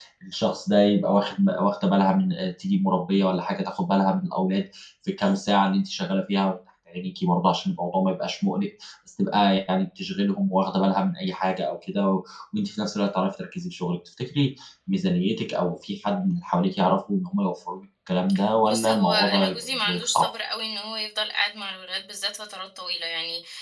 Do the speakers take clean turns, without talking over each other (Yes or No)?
No